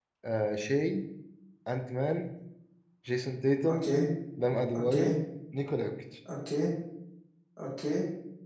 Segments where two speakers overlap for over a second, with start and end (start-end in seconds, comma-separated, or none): none